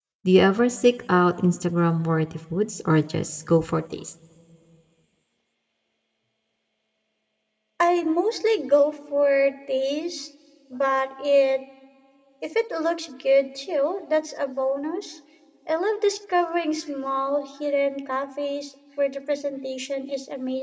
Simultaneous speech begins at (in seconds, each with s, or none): none